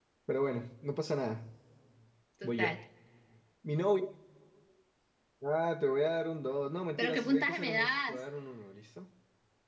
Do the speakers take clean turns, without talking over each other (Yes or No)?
No